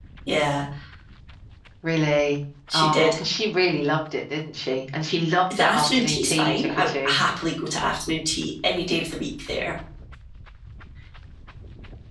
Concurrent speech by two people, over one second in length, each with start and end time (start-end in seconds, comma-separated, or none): 5.6-7.1